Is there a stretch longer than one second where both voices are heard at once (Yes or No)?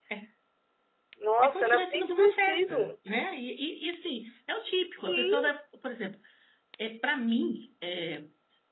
Yes